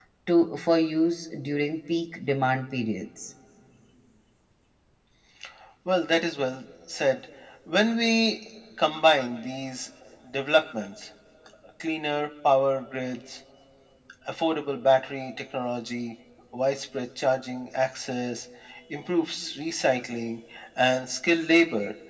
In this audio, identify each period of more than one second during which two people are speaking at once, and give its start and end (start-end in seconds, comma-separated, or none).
none